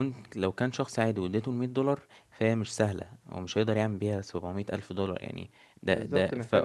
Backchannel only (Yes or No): No